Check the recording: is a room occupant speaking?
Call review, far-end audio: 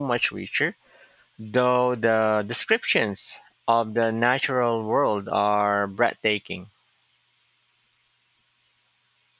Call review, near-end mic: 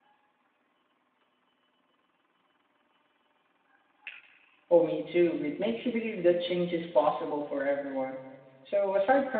Yes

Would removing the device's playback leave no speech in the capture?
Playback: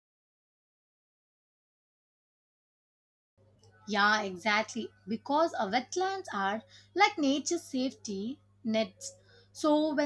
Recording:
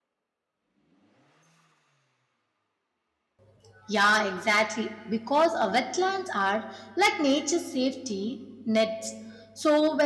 Yes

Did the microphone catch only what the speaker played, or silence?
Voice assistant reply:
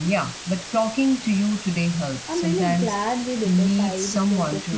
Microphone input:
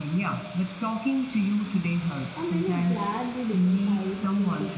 Yes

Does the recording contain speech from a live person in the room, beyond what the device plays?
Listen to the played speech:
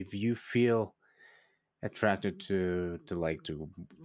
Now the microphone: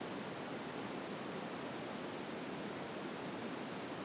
No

